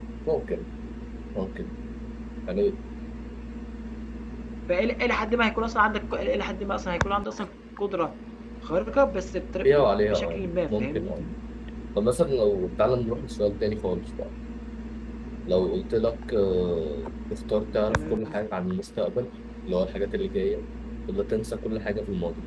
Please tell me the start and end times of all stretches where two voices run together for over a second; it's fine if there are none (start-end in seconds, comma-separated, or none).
9.6-11.1